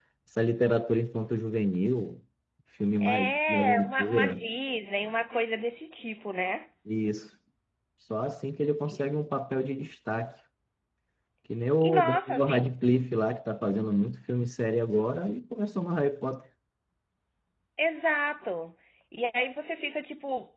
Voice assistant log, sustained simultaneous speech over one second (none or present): present